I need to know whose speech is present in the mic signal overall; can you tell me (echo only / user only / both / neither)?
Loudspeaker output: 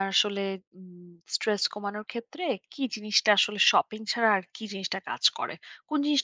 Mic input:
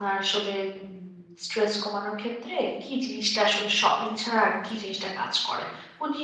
echo only